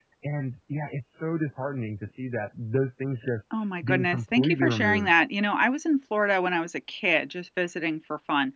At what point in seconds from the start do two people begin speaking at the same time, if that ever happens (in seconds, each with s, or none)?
3.9 s